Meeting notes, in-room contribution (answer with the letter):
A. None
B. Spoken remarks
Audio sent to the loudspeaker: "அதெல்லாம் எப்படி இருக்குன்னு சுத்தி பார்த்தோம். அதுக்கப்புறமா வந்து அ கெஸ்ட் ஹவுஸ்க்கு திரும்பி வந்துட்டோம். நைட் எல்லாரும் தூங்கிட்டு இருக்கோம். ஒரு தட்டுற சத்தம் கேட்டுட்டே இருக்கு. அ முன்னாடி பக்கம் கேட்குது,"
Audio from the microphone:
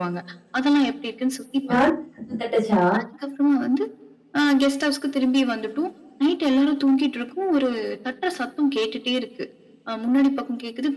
B